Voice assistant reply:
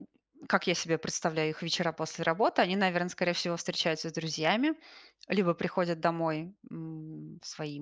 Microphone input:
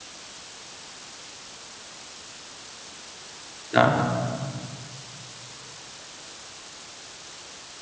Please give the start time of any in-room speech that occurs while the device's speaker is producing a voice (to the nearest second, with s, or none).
4 s